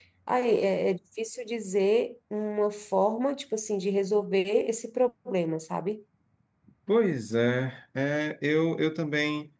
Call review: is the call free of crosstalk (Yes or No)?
Yes